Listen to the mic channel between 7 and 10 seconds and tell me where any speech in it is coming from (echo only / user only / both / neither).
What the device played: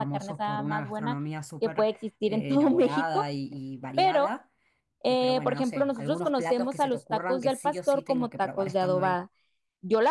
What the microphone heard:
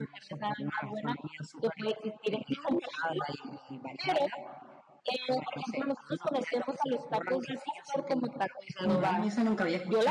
both